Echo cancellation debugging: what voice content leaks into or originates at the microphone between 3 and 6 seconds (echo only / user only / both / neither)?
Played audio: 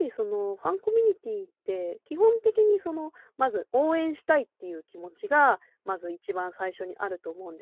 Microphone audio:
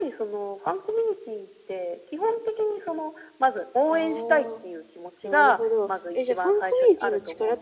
both